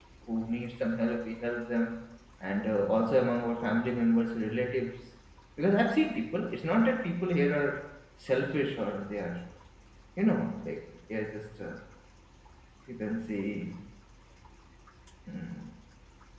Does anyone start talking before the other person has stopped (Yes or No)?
No